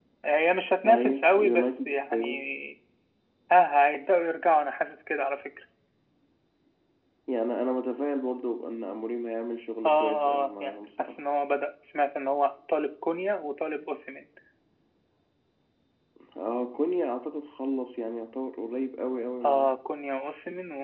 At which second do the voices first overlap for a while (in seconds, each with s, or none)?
0.9 s